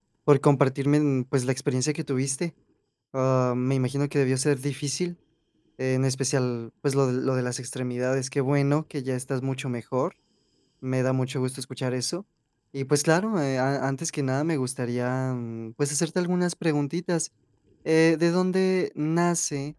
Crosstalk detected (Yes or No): No